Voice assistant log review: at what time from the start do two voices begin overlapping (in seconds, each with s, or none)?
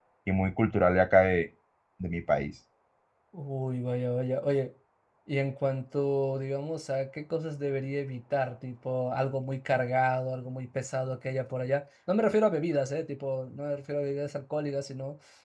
none